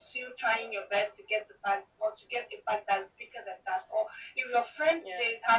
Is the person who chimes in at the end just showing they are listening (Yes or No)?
Yes